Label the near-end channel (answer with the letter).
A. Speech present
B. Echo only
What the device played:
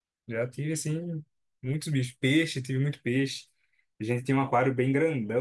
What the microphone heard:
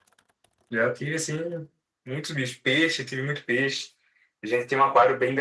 B